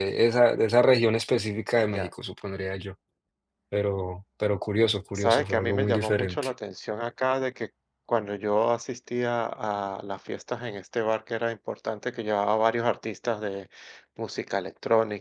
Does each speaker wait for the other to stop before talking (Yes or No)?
No